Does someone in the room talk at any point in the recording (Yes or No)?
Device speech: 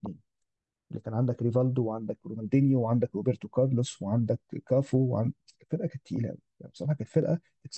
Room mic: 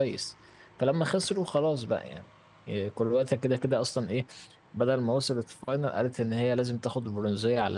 Yes